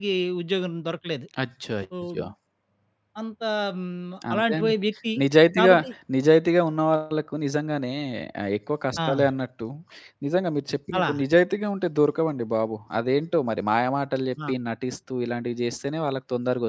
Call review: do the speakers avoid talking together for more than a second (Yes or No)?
Yes